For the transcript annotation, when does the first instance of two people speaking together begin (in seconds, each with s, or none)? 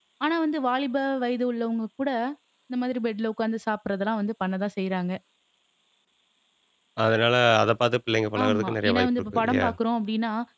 8.3 s